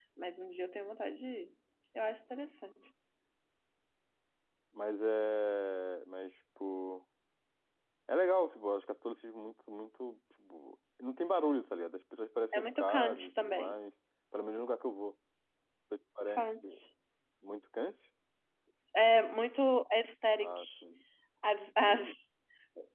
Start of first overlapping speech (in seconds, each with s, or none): 12.5 s